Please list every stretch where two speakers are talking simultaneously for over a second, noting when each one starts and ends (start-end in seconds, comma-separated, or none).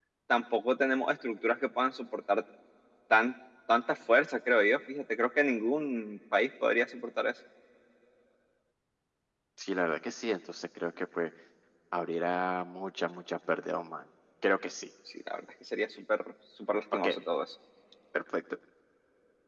none